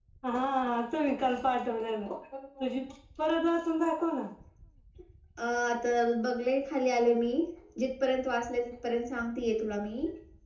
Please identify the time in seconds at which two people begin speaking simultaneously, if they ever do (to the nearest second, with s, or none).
none